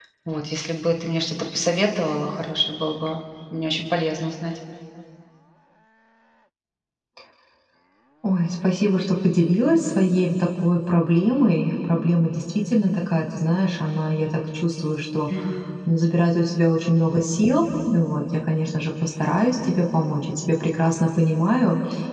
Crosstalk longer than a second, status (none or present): none